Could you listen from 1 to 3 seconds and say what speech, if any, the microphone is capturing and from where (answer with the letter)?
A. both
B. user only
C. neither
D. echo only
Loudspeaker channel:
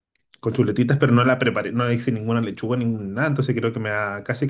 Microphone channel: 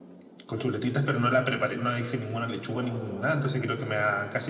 D